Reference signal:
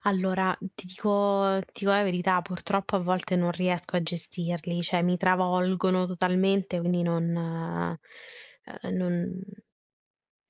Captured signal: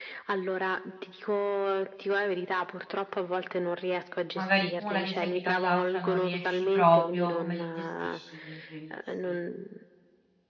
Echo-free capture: No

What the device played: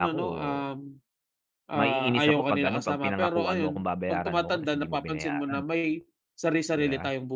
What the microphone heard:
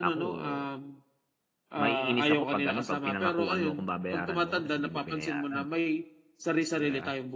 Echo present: Yes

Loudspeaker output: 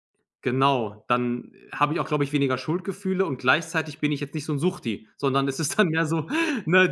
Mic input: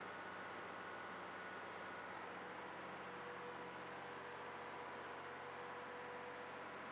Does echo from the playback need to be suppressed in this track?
No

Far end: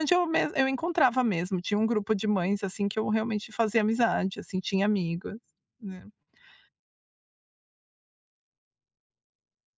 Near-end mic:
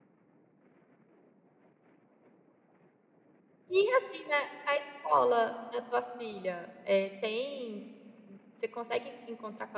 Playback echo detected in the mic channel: No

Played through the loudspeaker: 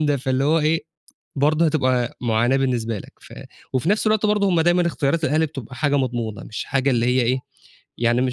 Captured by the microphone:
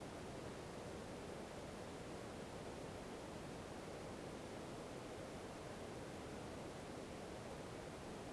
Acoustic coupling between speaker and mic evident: No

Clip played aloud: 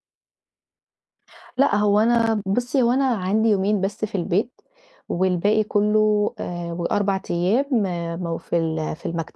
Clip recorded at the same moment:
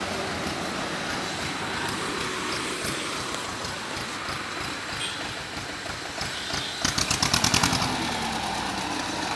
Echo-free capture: Yes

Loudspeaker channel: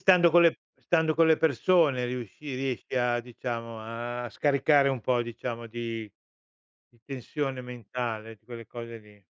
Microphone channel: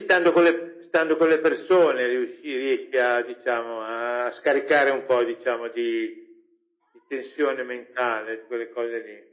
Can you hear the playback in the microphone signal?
Yes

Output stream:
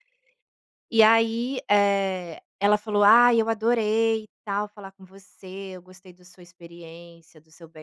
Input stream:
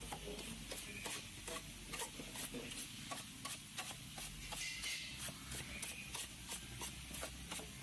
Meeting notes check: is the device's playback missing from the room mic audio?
Yes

